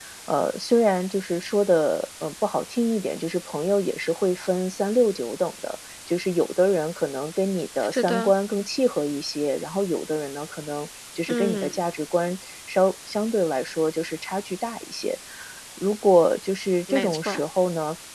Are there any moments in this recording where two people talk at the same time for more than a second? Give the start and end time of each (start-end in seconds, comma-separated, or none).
none